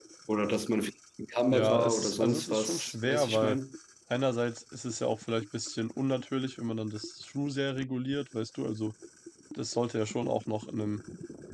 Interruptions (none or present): present